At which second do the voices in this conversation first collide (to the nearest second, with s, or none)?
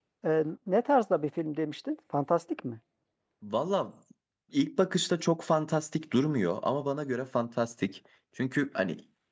none